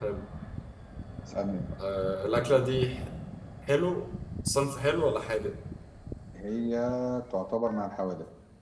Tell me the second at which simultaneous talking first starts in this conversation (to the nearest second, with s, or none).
none